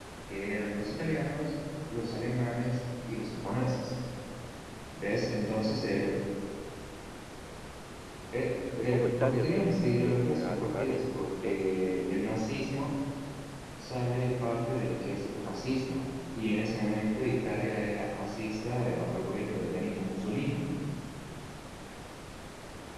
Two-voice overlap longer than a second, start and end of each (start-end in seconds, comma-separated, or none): 8.8-11.6